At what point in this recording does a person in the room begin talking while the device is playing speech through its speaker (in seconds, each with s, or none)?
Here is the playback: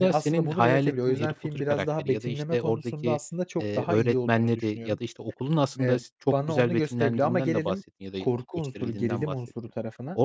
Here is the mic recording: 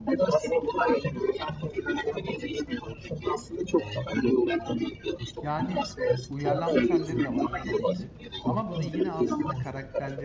5.4 s